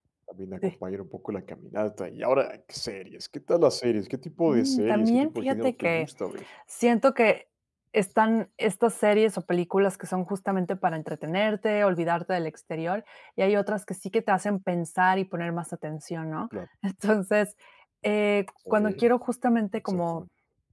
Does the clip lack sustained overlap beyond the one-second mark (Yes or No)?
No